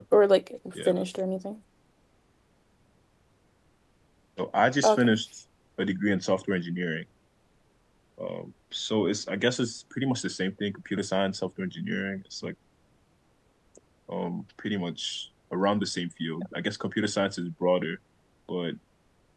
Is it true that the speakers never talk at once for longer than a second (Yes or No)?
Yes